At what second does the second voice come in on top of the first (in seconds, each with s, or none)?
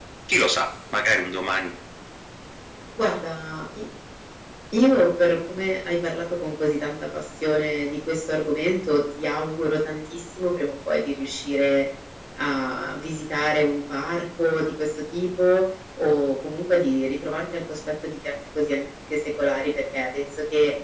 none